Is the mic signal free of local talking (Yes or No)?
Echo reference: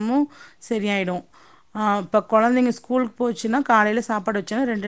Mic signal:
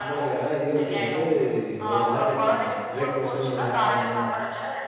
No